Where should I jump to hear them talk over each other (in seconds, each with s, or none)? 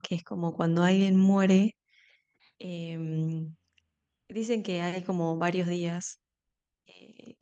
none